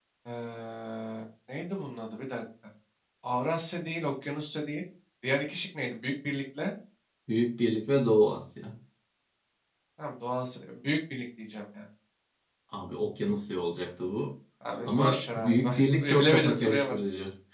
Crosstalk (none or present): present